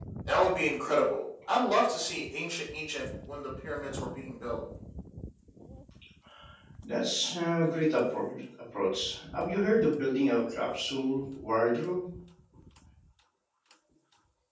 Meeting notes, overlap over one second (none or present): none